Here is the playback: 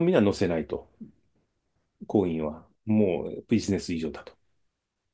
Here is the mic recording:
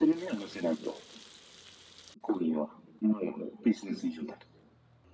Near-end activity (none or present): none